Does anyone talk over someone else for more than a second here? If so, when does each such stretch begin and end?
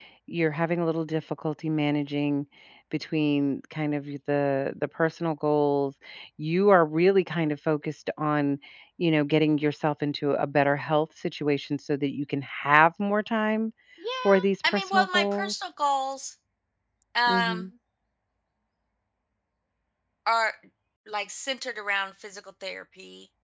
14.2-15.5

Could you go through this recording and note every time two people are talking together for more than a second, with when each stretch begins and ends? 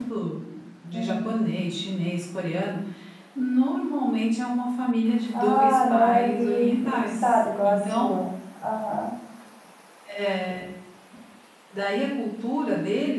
5.3-8.0

